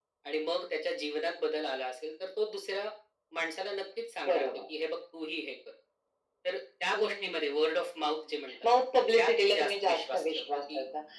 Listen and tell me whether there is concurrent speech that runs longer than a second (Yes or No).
Yes